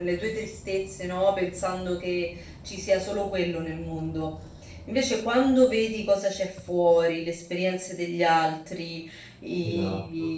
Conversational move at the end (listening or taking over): listening